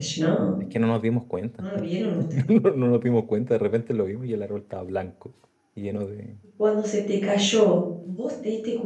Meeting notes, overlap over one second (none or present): none